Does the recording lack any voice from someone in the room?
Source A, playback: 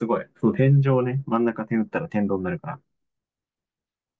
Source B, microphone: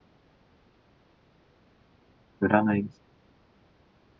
No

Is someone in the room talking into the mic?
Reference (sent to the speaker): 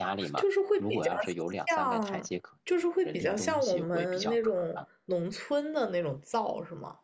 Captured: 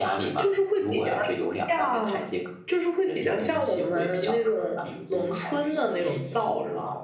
Yes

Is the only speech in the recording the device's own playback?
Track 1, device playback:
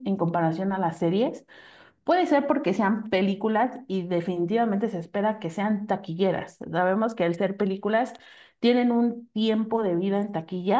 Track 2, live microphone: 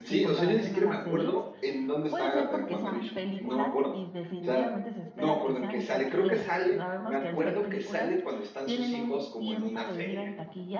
No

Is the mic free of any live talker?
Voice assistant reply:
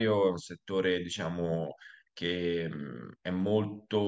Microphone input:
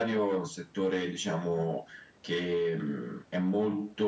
Yes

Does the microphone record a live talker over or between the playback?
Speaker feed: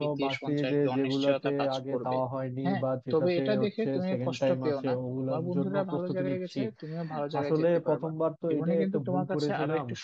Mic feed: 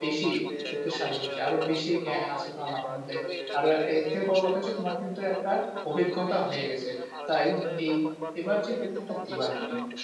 Yes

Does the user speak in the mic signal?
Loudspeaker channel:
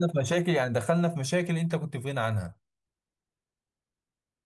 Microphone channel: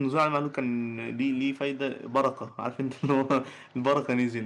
Yes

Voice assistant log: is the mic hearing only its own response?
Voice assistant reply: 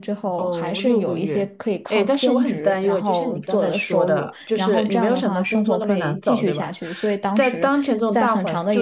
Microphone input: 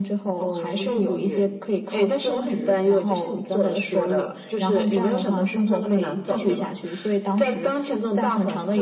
Yes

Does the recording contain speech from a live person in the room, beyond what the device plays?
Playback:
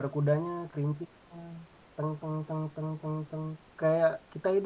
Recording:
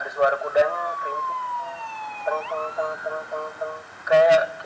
No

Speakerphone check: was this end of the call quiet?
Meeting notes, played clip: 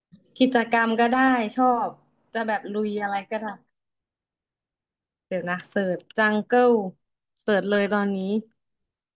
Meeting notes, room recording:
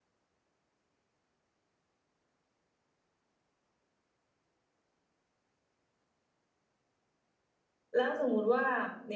No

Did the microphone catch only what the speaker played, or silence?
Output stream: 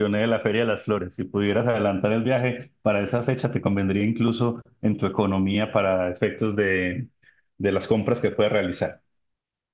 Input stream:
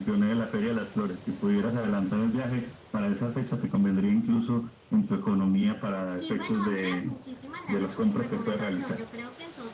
No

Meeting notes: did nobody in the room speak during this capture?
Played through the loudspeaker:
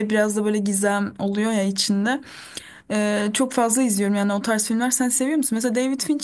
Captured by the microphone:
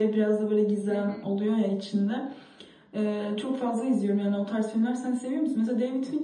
No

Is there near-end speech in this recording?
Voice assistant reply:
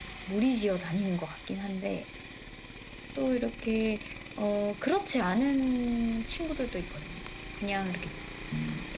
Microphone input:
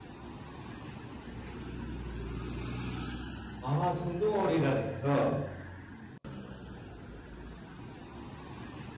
Yes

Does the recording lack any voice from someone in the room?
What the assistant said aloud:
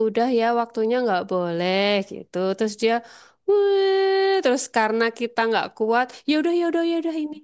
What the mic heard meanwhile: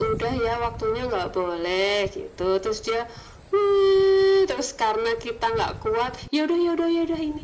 Yes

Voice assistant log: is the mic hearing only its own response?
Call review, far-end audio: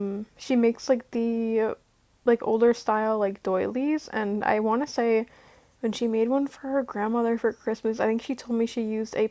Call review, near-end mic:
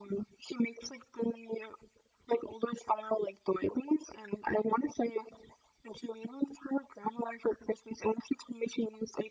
Yes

